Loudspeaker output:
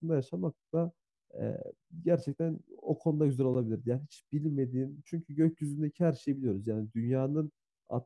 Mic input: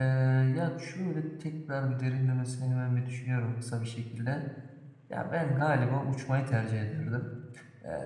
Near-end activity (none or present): present